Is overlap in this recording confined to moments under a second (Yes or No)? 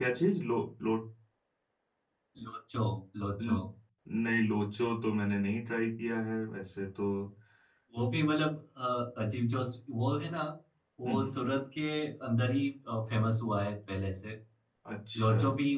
Yes